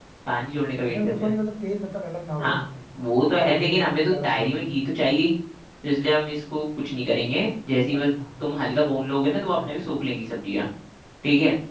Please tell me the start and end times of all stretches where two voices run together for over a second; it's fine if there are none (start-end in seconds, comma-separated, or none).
3.3-4.6